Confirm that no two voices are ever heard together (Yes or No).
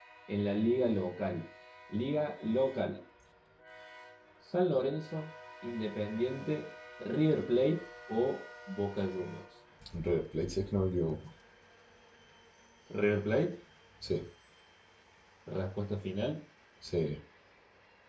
Yes